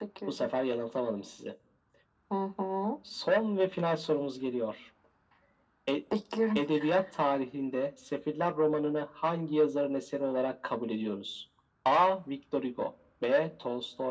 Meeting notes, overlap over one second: none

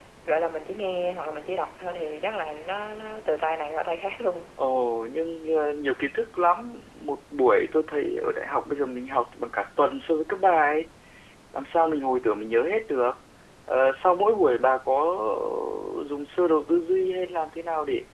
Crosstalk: none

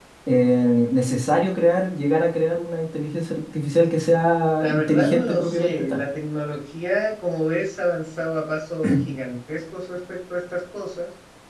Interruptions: present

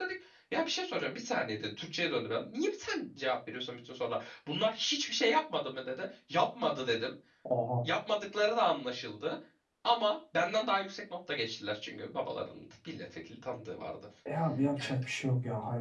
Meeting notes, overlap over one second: none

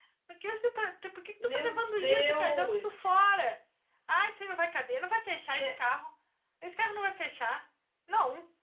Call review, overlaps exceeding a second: present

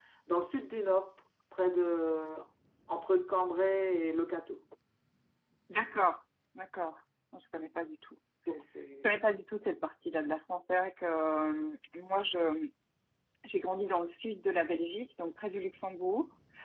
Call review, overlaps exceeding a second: none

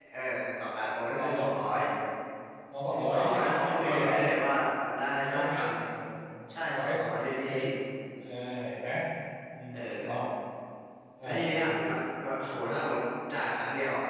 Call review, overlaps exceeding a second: present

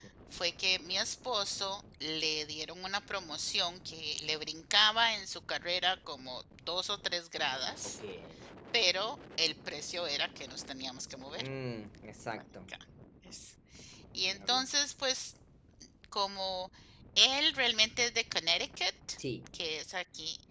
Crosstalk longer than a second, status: none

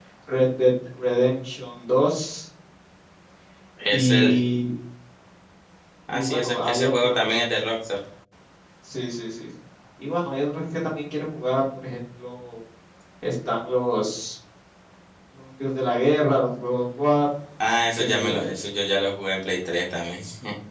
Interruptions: present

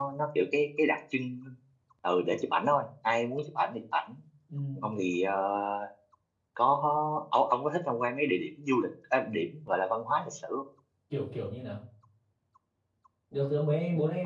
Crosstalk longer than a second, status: none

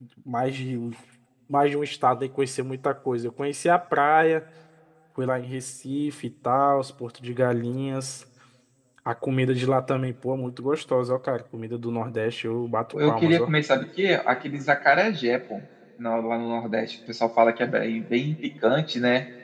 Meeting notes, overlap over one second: none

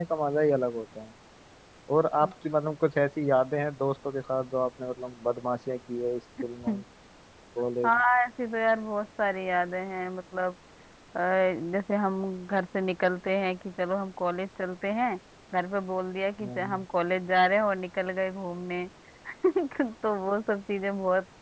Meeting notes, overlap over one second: none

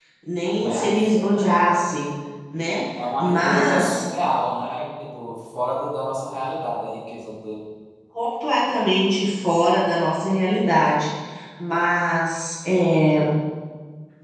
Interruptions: present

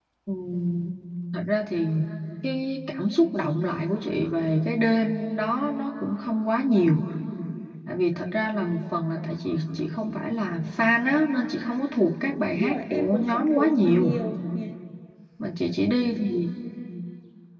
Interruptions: present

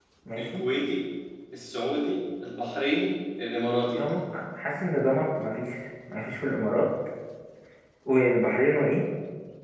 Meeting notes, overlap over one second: none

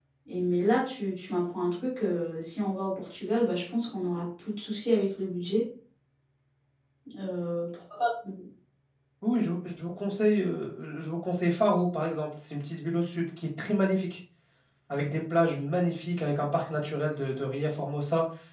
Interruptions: none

